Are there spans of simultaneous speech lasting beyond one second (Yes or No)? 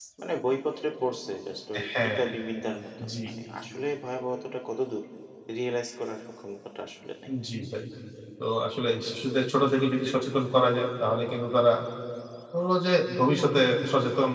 No